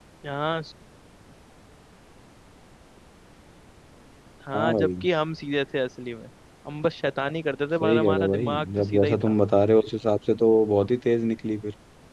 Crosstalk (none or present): present